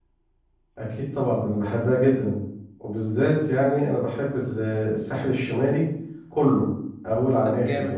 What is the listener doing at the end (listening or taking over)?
taking over